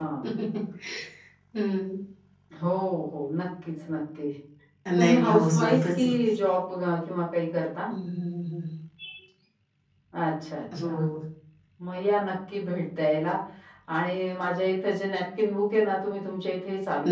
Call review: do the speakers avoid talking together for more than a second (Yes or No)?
No